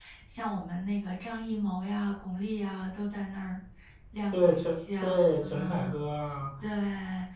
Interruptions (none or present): present